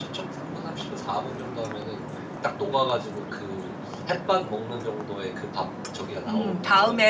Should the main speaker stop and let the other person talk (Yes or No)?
Yes